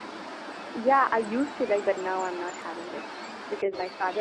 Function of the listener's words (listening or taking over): listening